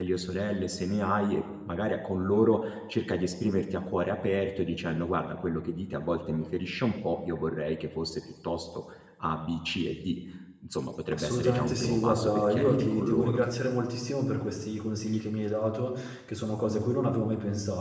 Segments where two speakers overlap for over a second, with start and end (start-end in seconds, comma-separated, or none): 11.1-13.4